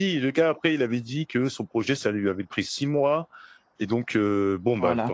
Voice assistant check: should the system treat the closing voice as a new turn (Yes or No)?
No